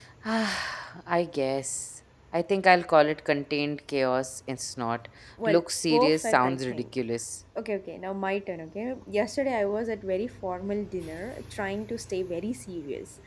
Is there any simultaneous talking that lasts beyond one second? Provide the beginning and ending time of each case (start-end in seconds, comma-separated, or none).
5.5-6.9